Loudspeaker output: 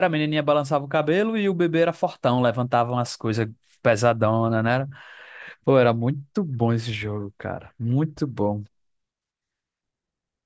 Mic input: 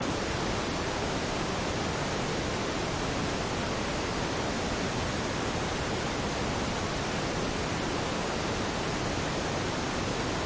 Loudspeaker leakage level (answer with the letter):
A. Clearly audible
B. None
B